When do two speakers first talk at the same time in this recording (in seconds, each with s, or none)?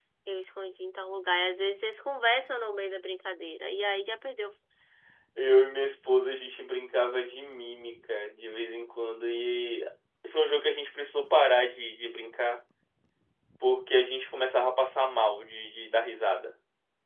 none